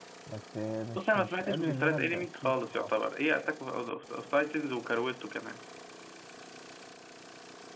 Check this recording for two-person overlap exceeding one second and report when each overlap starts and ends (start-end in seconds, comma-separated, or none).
0.9-2.9